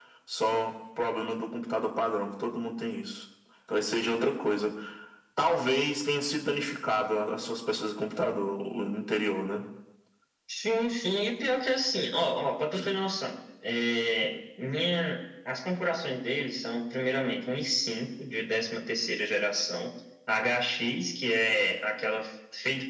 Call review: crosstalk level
none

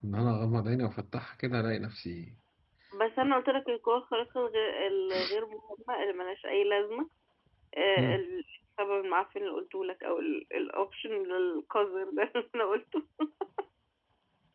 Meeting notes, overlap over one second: none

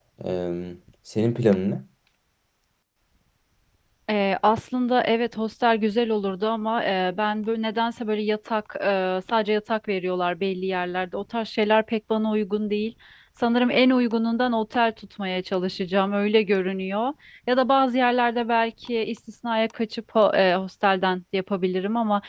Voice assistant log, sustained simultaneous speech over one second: none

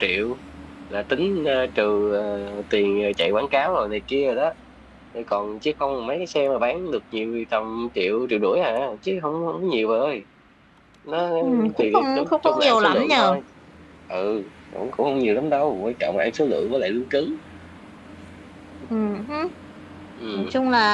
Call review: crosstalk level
present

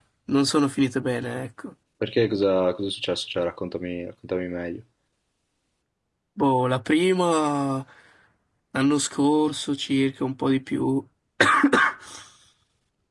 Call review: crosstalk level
none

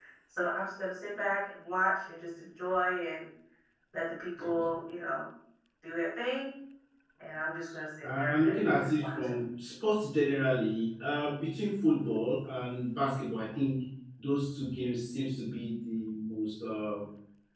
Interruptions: present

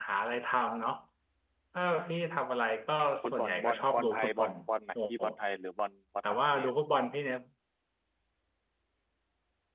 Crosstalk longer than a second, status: present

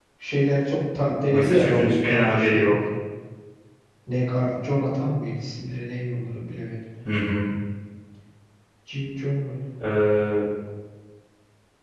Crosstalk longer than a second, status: present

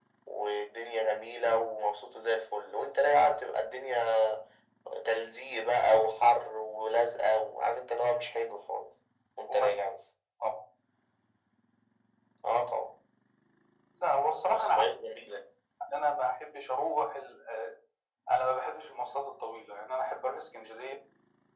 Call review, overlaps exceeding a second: none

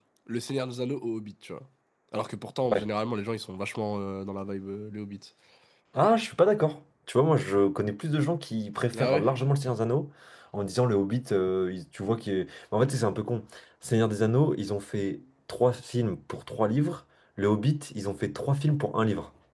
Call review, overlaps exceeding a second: none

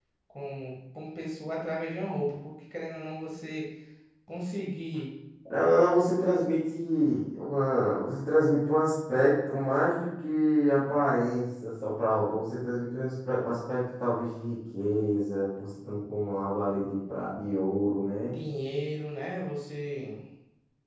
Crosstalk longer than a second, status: none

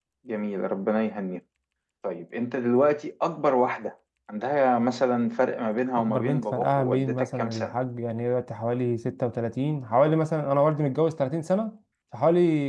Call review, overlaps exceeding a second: present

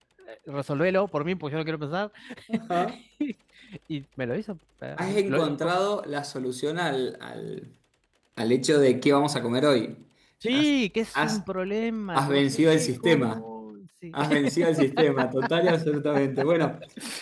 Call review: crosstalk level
present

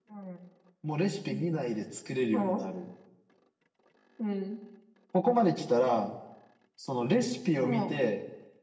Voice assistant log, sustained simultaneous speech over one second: none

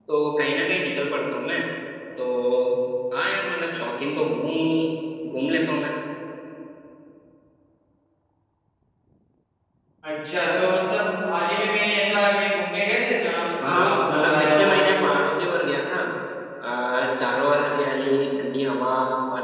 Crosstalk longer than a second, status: present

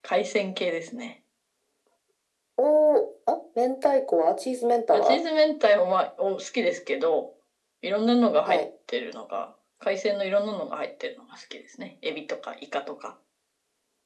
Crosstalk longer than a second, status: none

